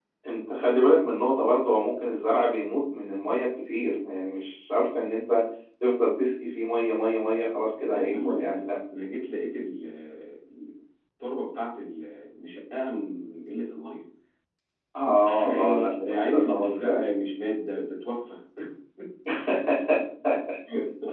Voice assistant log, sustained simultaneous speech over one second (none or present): present